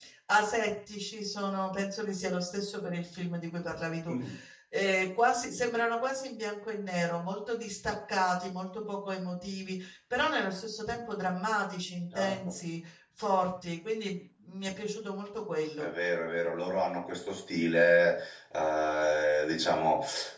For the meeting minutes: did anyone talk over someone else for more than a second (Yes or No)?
No